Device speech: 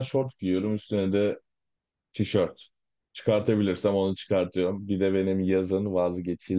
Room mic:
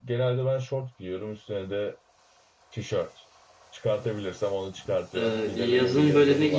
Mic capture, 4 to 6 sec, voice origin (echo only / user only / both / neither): both